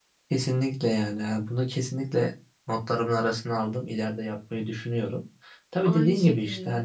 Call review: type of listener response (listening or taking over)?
listening